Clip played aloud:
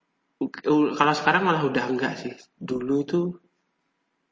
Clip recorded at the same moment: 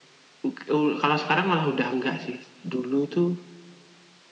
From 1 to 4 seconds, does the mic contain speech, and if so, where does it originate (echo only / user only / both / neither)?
echo only